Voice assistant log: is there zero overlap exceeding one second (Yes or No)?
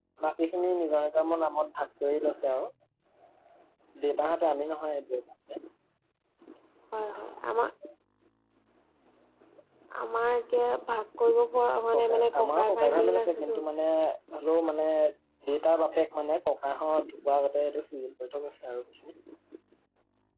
No